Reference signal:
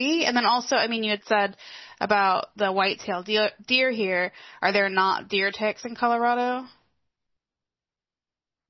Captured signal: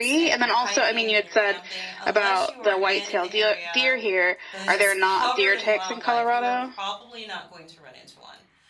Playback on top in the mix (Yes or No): Yes